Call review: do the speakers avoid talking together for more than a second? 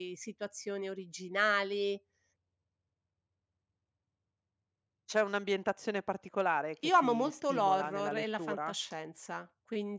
No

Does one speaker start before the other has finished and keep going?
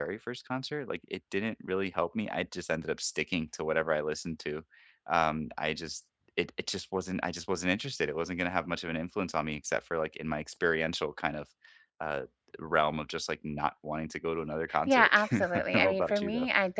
Yes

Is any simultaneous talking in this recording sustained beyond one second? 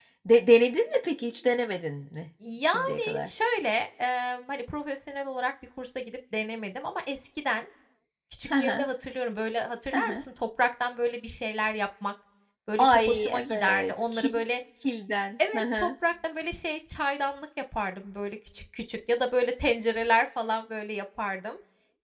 Yes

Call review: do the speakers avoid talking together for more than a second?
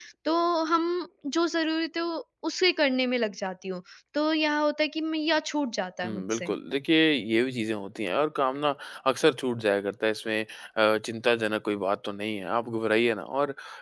Yes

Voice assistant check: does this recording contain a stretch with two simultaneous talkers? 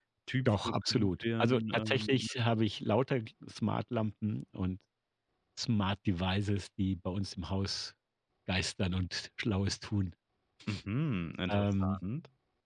Yes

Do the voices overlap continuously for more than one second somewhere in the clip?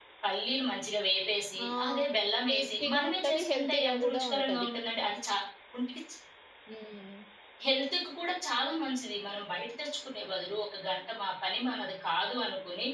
Yes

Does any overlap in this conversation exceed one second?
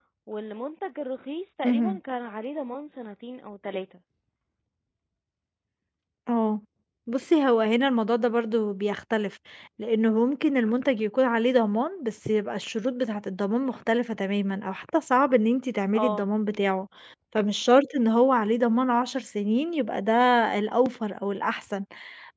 No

